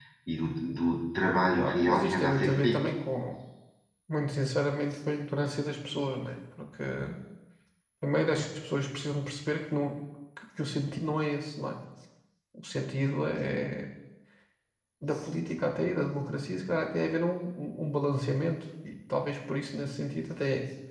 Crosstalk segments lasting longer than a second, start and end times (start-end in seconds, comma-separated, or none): 1.6-3.0